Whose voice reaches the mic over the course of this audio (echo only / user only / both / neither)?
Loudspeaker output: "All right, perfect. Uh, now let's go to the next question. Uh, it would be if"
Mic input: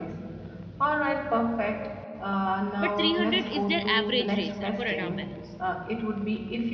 both